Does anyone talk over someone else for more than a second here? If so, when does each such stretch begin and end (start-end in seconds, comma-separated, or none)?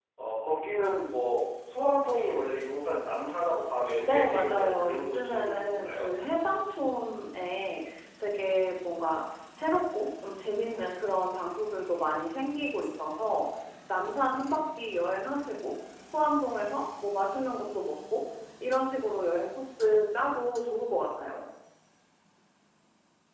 4.0-6.1